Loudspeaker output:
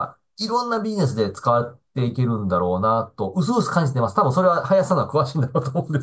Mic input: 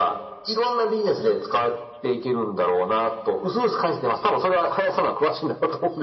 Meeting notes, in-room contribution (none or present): none